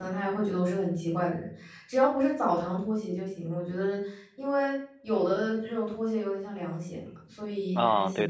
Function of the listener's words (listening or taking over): taking over